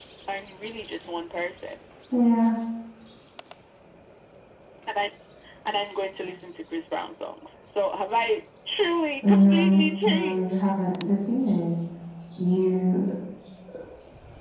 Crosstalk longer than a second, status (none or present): present